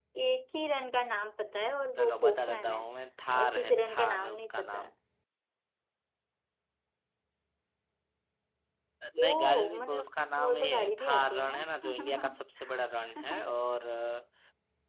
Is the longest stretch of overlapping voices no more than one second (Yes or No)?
No